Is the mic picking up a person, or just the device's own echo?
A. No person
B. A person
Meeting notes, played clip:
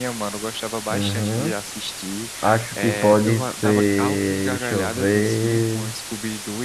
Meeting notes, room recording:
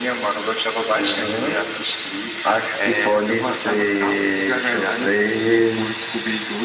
A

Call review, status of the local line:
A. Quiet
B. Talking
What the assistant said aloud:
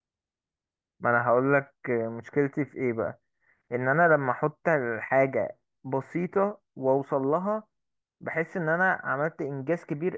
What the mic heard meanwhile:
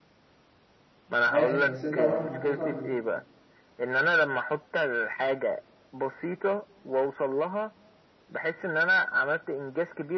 B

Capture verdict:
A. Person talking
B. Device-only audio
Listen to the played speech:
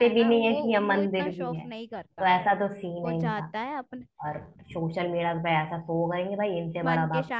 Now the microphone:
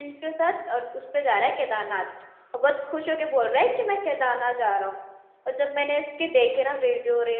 A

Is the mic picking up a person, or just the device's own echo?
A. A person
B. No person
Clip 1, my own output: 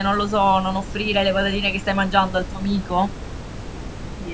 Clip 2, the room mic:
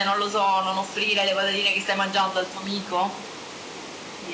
B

